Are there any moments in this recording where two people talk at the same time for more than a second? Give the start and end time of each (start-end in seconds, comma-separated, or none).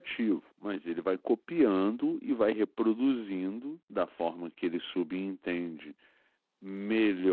none